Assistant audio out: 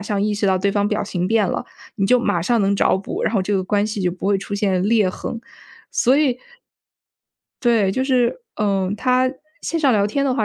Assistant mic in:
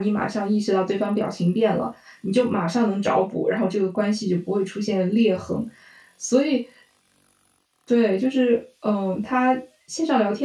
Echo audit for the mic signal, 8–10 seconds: echo only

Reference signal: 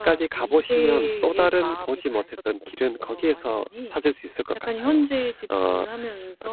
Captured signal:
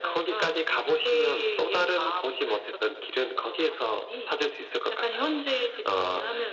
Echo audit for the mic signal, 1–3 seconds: echo only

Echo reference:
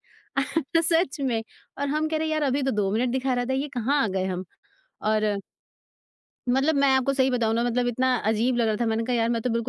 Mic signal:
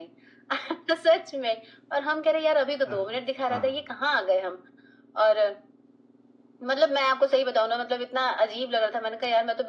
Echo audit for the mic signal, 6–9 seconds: echo only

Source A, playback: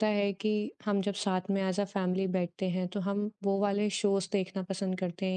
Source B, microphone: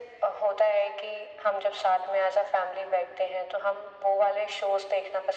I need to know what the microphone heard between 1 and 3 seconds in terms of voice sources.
echo only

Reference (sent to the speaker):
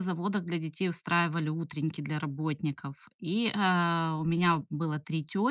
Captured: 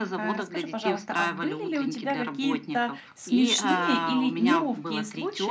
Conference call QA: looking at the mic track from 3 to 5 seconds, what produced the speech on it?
both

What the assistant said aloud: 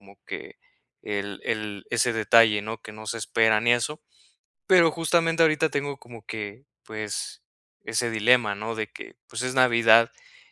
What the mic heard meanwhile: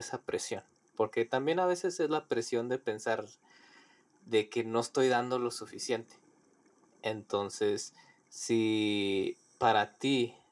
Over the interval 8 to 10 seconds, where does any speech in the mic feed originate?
user only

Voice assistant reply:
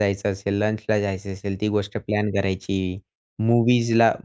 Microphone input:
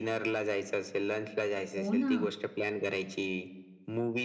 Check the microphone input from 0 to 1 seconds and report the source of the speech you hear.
echo only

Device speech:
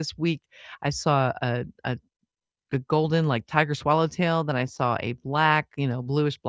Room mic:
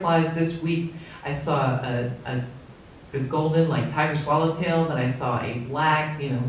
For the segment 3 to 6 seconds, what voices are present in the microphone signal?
echo only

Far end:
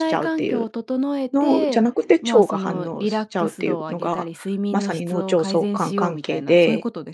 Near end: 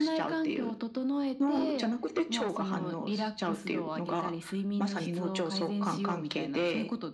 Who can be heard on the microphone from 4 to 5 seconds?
echo only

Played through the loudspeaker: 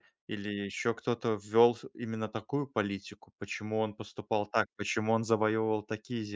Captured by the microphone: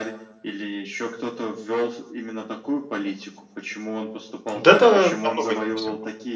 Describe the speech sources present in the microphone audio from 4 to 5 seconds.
both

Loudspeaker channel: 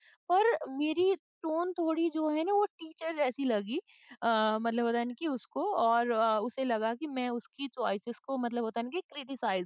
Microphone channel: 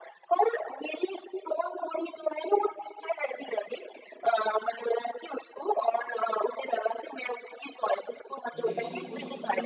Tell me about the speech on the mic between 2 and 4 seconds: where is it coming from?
echo only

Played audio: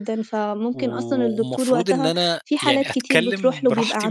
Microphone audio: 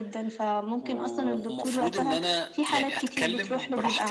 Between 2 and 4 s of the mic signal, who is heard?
echo only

